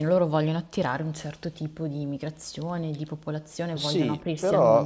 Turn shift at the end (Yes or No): Yes